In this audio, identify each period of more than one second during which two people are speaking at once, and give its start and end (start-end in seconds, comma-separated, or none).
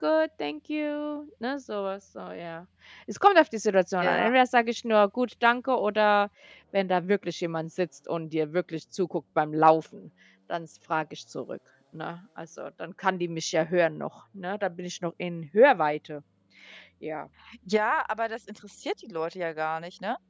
none